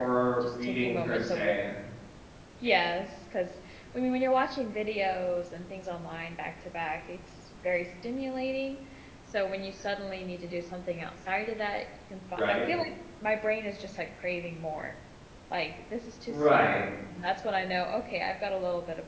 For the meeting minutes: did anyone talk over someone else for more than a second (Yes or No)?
Yes